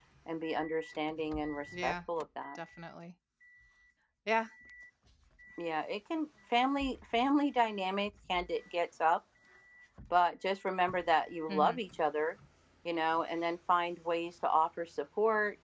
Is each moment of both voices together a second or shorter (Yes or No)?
Yes